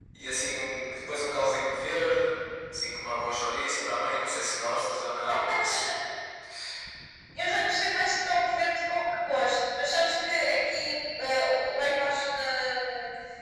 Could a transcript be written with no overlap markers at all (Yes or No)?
Yes